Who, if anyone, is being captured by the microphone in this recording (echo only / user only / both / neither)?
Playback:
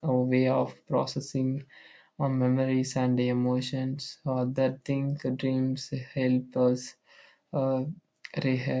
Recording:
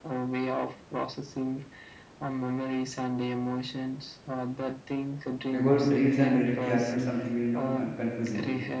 both